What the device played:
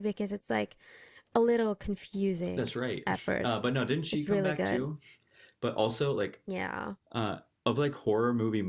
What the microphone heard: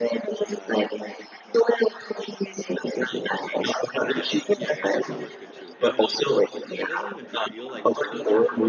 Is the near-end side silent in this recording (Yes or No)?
No